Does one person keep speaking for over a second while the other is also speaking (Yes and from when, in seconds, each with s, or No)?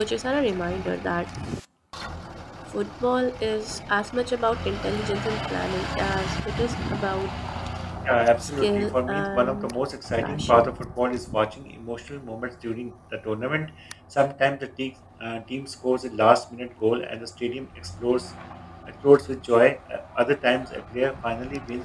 Yes, from 8.4 s